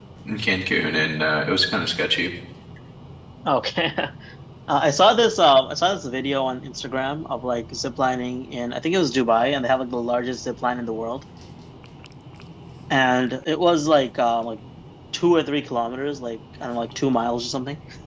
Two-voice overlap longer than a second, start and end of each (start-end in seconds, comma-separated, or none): none